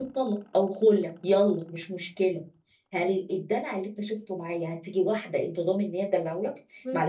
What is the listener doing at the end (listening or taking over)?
listening